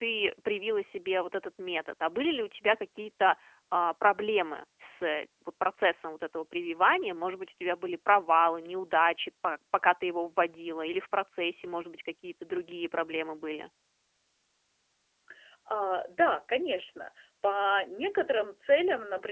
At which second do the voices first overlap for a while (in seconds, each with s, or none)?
none